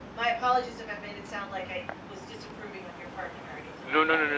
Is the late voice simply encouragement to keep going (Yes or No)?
No